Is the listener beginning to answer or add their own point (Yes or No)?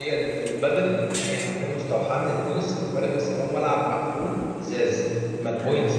No